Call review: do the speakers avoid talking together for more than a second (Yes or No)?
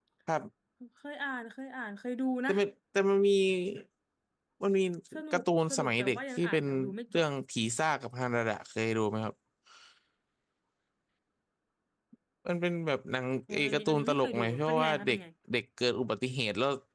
No